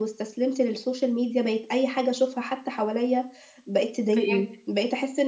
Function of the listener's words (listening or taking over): listening